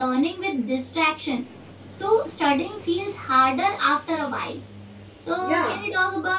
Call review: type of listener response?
listening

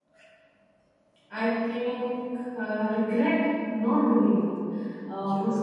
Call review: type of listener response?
listening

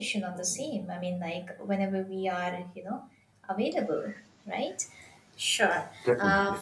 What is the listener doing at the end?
listening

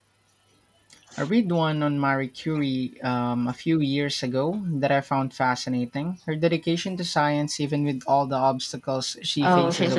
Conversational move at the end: taking over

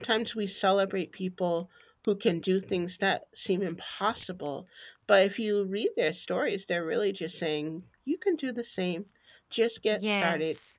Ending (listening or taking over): taking over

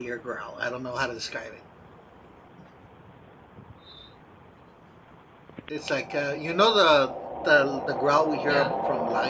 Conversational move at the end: listening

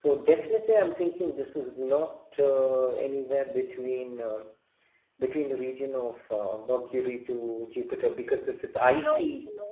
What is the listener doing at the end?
taking over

